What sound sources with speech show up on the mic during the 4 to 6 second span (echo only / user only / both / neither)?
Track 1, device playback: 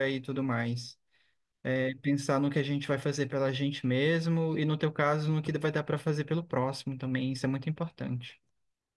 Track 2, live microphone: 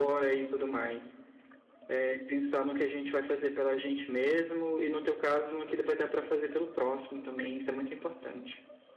echo only